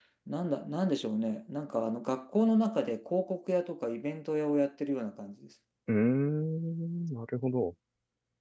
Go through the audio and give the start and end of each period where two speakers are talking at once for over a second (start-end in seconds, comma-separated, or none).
none